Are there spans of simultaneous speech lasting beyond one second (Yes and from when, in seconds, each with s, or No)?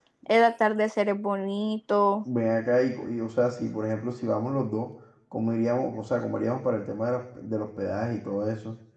No